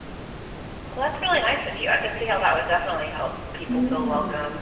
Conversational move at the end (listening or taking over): taking over